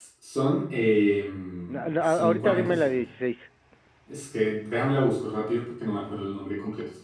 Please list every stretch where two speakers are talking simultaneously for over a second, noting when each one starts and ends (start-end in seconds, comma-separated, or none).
1.7-3.0